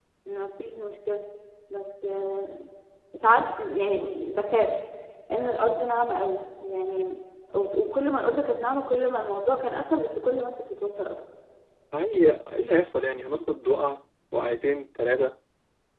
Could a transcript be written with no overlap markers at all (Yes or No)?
Yes